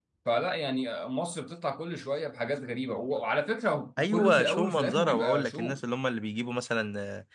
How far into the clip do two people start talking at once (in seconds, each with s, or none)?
4.0 s